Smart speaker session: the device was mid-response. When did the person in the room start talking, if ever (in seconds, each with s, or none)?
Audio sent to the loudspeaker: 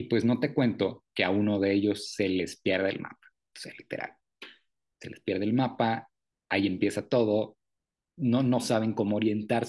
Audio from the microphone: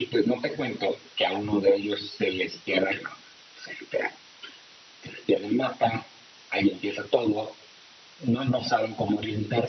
none